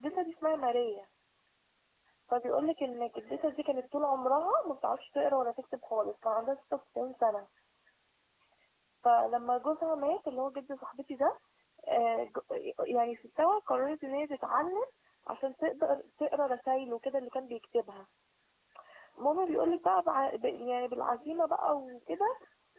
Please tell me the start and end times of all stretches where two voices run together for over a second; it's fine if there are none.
none

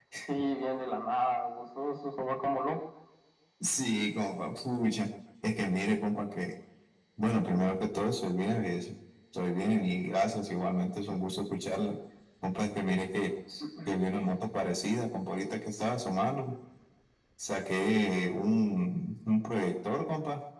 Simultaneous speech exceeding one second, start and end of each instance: none

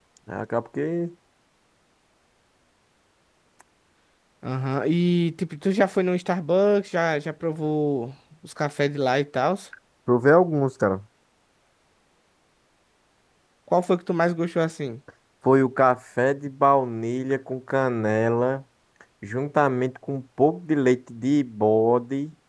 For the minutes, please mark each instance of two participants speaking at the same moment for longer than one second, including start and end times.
none

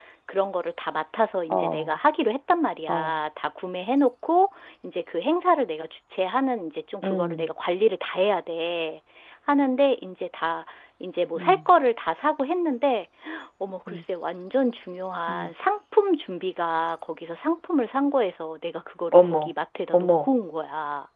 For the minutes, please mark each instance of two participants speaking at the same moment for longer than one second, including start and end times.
none

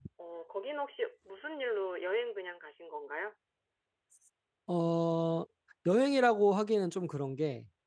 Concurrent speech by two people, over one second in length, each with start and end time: none

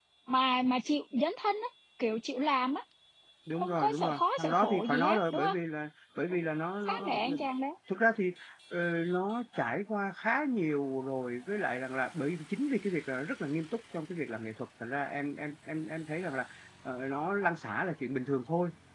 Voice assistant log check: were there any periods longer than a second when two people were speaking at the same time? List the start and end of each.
3.6-5.5

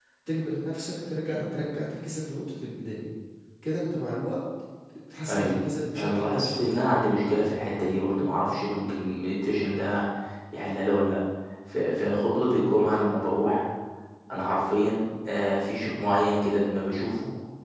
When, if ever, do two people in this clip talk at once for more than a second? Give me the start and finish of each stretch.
5.3-7.0

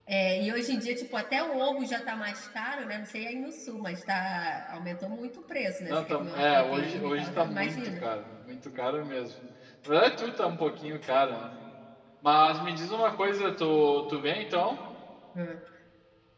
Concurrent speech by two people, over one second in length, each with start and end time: 5.9-8.0

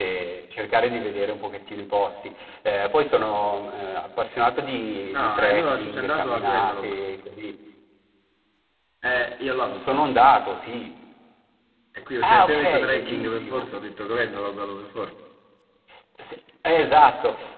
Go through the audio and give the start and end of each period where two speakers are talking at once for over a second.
5.1-7.0, 12.2-13.7

